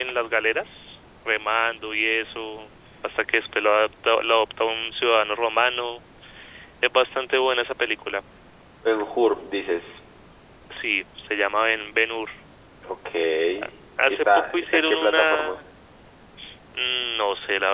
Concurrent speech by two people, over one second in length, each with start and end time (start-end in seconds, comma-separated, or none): 14.1-15.6